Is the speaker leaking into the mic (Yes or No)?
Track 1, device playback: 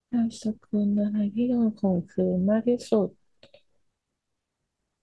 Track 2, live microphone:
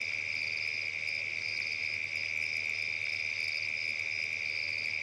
No